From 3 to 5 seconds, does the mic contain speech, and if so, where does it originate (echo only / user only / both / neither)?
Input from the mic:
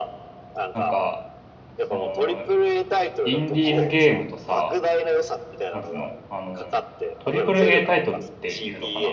both